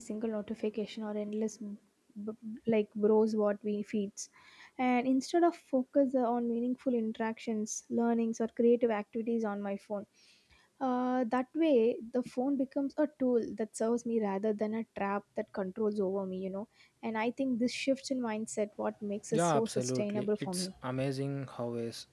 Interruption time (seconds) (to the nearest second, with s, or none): 19 s